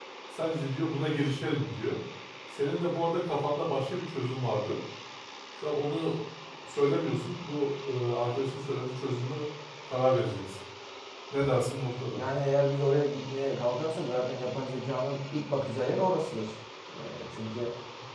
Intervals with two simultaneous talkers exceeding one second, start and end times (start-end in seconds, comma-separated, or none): none